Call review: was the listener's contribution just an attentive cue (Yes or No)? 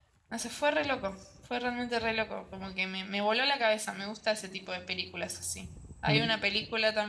Yes